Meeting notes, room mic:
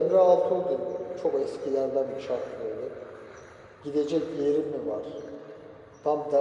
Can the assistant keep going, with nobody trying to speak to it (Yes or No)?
Yes